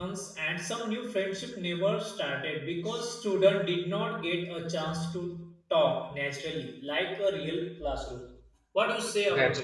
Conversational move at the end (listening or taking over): taking over